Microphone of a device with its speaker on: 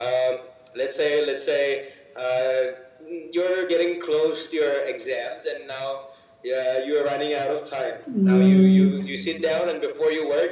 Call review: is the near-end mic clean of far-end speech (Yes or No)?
No